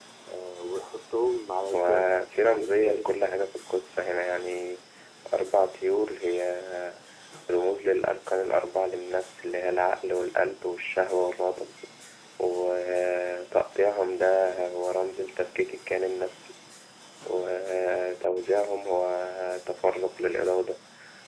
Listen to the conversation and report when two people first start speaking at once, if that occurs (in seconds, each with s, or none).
1.7 s